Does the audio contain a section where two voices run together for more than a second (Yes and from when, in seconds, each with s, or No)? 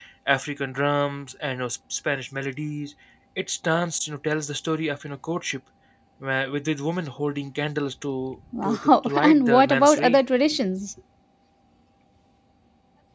Yes, from 8.5 s